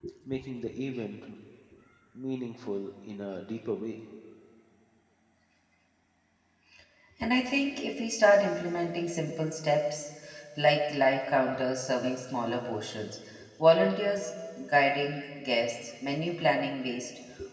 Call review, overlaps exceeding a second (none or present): none